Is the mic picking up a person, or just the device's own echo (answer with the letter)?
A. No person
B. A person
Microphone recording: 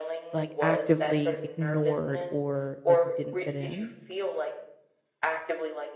B